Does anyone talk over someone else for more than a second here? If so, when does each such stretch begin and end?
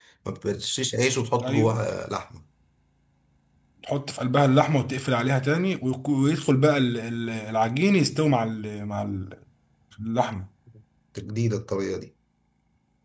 none

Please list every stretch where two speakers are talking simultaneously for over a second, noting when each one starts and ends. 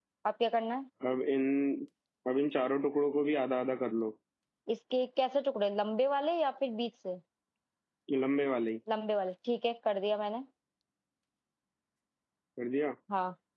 none

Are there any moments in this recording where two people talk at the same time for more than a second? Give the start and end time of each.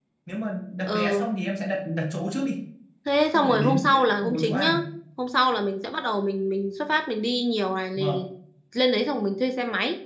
3.3-4.7

